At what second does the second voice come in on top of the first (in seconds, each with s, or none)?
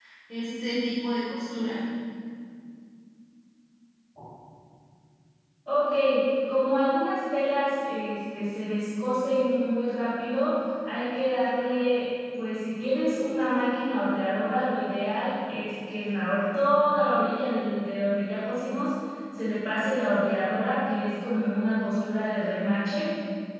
none